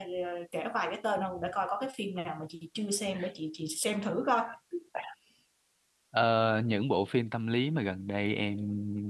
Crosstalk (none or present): none